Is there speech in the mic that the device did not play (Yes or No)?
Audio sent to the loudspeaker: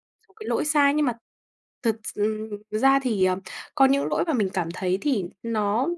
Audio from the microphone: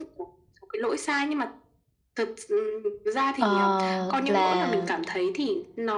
Yes